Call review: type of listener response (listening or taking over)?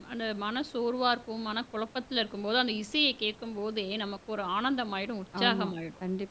taking over